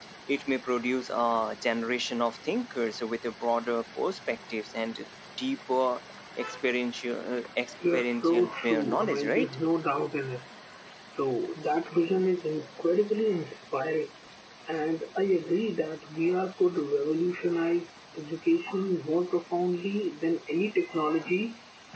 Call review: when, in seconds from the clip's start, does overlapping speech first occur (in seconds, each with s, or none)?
7.8 s